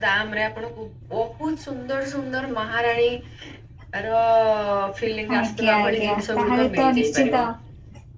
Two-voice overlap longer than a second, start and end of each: 5.4-7.3

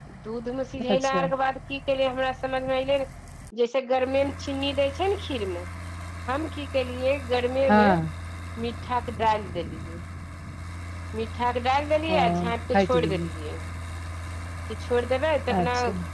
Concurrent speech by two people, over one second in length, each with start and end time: none

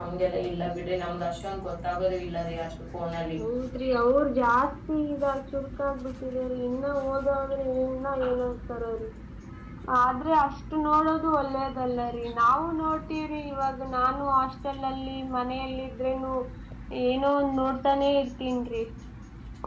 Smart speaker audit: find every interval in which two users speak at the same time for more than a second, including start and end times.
none

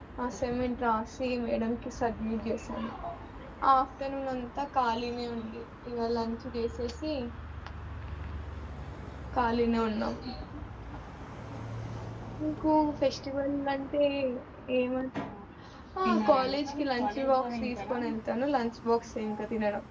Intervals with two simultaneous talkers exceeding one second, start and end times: 16.0-18.0

